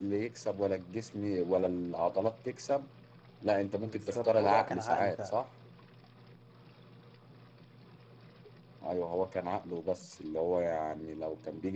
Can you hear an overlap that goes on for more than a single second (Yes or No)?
Yes